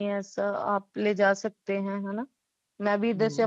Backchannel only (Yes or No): No